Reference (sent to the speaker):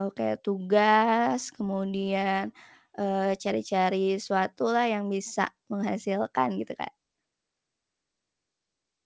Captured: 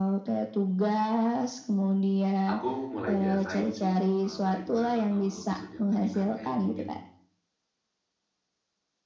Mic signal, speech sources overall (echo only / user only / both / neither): both